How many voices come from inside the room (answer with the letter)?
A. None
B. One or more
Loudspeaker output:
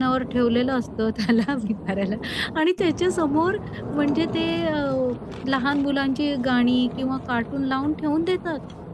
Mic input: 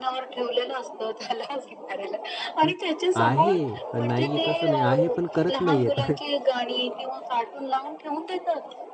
B